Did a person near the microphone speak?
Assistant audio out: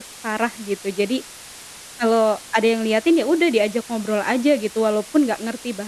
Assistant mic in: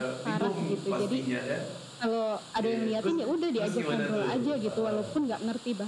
Yes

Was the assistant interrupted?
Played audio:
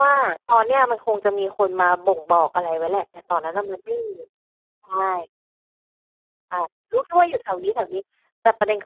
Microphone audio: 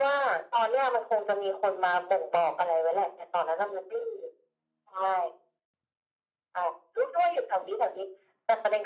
No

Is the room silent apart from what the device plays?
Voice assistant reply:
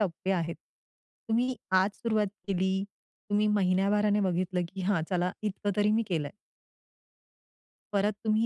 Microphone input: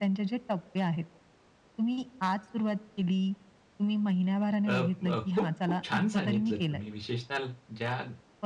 No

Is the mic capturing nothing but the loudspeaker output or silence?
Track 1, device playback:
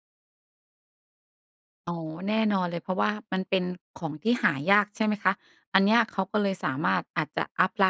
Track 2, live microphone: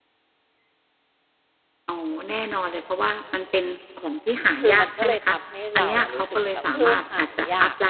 No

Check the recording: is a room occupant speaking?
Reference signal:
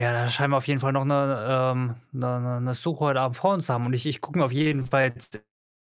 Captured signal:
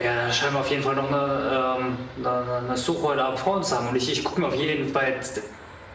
No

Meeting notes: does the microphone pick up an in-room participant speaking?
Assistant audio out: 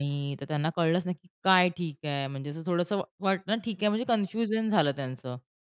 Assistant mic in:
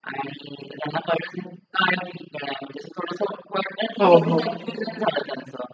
Yes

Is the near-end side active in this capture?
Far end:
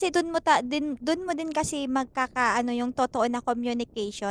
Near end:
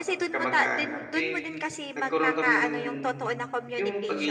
Yes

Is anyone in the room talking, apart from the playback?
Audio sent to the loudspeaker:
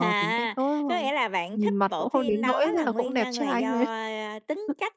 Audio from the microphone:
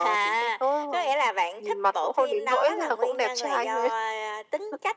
No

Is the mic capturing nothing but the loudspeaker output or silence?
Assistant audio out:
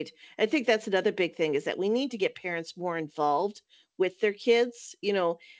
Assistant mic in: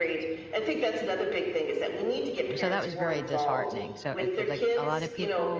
No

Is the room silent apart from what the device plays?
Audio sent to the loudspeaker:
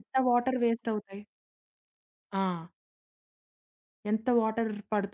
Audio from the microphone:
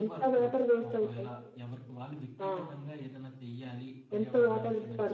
No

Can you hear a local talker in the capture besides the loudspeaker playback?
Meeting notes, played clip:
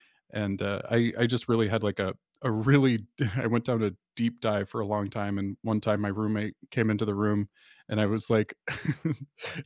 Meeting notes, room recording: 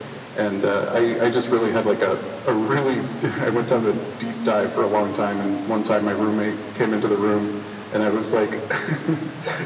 No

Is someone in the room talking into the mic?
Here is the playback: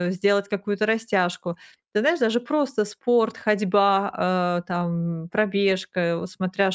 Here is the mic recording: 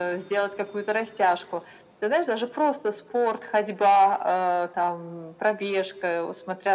No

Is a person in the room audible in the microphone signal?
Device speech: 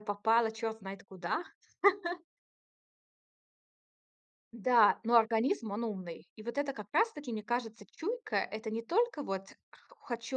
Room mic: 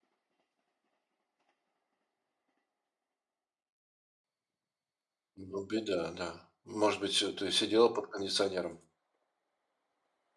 Yes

